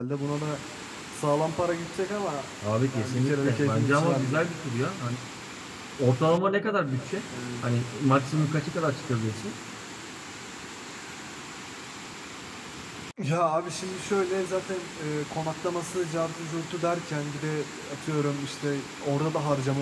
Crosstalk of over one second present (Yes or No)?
Yes